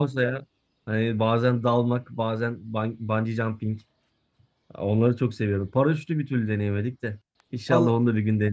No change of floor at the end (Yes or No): No